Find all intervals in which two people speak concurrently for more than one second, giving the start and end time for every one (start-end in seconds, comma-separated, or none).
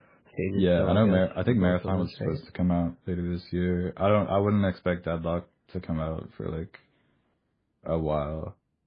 0.5-2.4